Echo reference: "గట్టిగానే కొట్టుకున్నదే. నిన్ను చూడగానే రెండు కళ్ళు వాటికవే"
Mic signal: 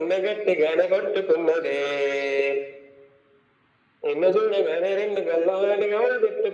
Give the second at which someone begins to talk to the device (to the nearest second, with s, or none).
none